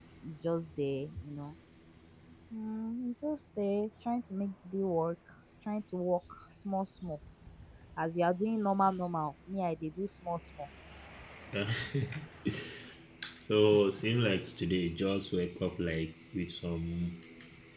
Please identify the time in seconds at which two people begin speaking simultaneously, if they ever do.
none

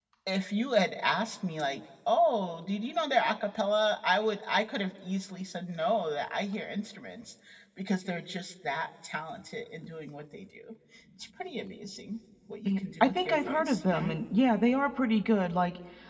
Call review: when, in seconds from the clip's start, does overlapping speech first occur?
12.6 s

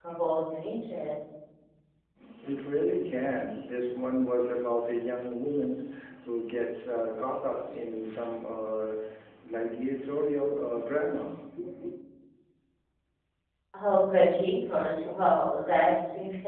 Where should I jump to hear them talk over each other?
none

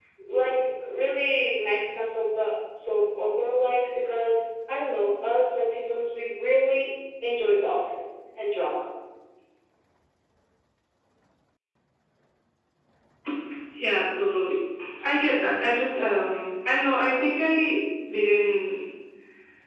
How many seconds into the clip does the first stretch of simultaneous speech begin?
none

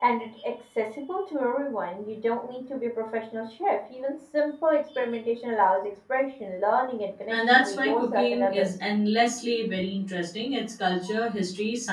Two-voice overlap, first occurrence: 7.3 s

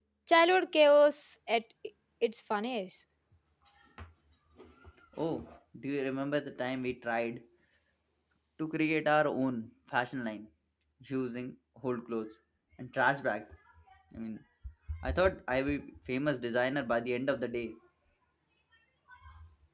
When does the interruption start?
none

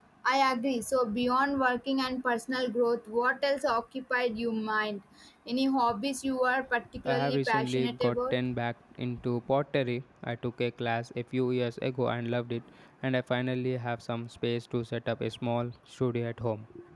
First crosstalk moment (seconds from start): 7.0 s

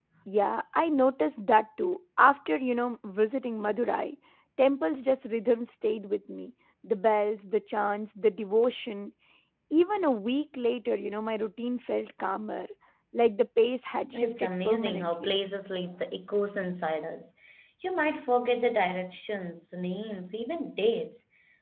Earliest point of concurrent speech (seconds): 14.0 s

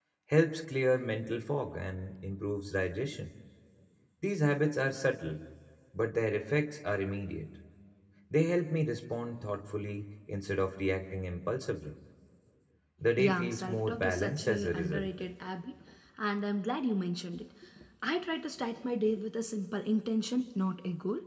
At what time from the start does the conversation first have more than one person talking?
13.2 s

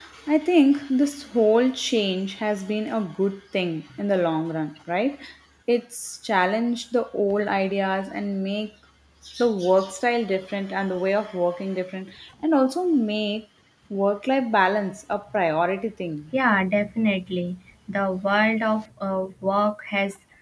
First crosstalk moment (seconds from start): none

